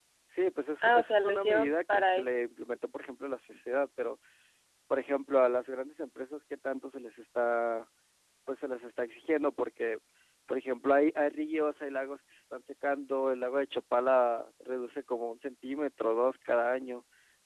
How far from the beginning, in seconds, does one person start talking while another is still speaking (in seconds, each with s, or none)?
0.8 s